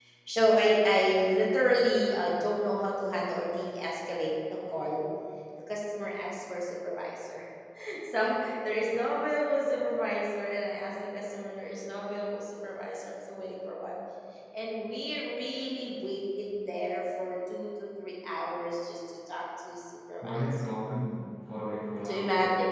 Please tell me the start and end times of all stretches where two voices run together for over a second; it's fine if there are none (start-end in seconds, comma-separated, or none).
none